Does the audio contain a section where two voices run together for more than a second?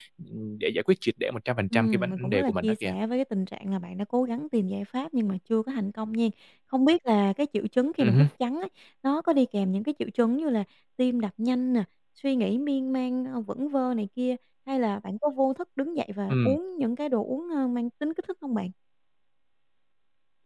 Yes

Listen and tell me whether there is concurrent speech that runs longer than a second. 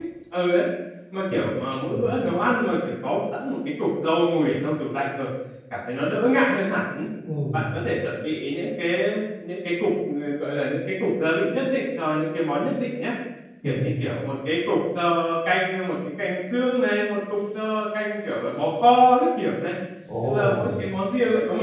No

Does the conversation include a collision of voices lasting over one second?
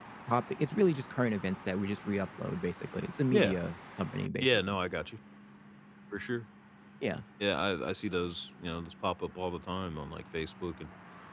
No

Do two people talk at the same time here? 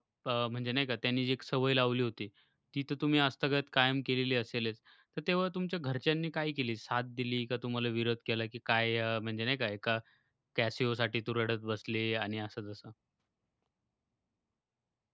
No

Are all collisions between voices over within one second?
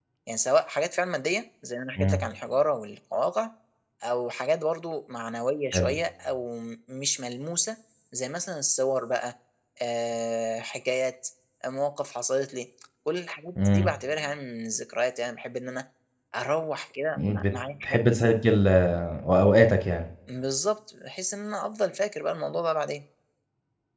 Yes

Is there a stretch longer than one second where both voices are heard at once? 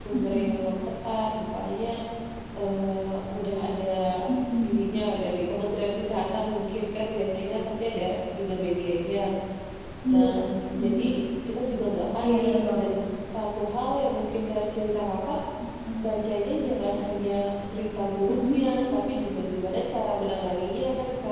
No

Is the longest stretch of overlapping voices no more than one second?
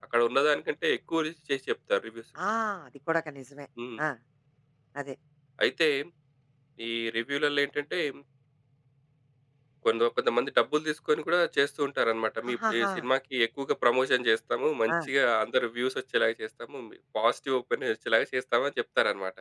Yes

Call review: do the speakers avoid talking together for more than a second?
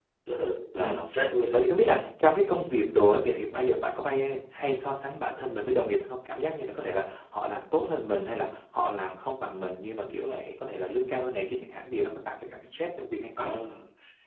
Yes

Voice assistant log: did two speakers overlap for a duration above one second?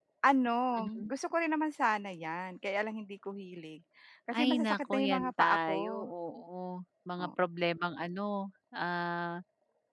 Yes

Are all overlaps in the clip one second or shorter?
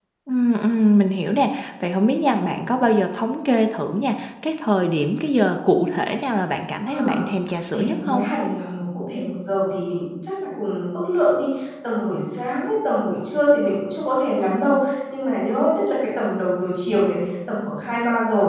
Yes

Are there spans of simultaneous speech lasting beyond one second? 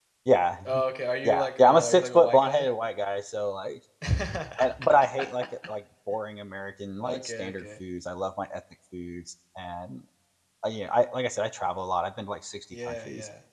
Yes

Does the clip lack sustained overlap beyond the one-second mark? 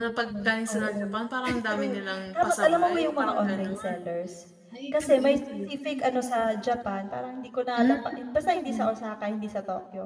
No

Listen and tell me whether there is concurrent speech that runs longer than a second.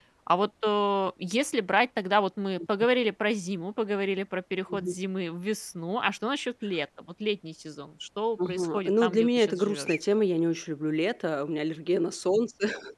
Yes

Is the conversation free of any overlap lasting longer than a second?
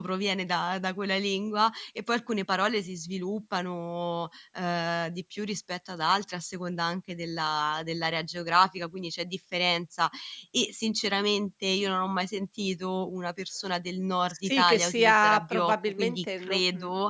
No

